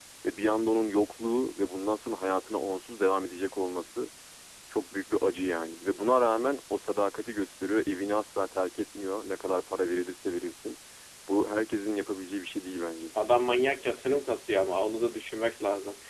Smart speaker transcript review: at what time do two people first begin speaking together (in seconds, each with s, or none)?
none